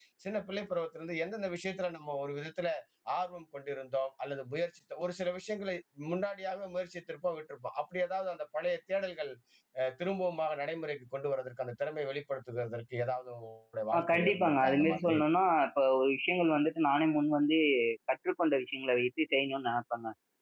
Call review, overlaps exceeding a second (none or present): present